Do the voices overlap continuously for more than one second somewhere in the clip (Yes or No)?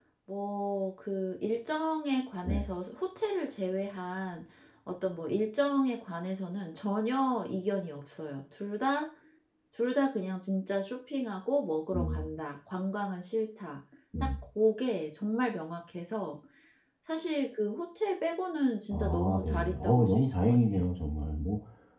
Yes